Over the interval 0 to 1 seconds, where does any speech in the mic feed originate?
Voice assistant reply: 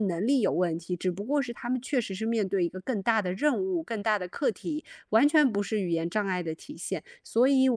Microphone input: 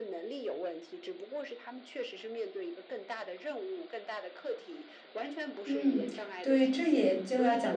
echo only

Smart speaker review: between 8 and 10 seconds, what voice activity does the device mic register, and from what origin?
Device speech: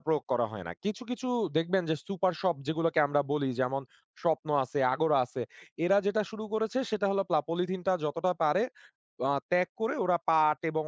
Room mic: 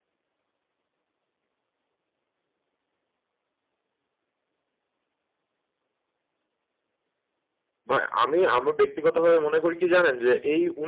user only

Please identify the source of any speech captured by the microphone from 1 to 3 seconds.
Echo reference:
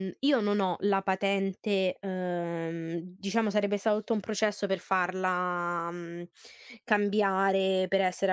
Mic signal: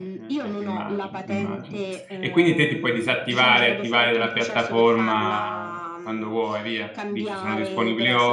both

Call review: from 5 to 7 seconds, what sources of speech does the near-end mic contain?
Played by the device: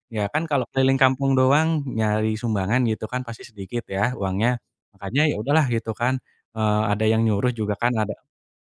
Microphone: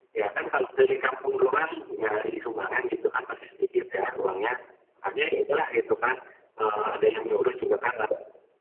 echo only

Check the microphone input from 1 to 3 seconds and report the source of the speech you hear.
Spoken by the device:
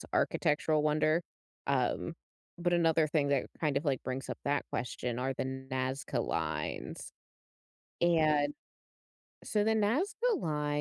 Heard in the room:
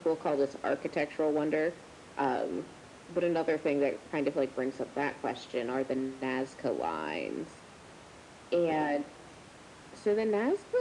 echo only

